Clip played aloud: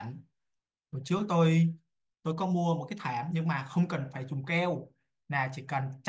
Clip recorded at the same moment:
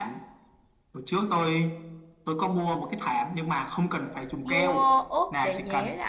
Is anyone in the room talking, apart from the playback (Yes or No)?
Yes